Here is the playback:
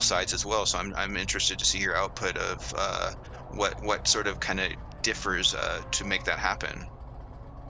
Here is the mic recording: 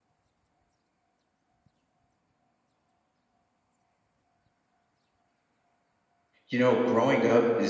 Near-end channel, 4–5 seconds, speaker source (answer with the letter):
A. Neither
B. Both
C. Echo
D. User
A